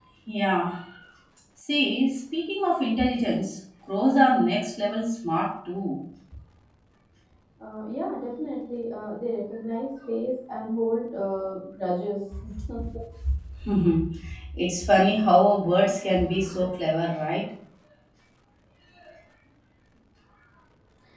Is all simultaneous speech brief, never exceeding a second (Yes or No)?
Yes